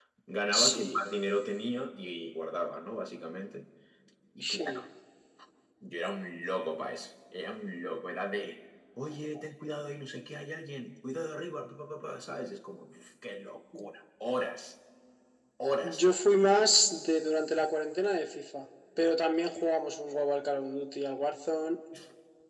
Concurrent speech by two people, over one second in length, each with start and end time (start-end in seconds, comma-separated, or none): none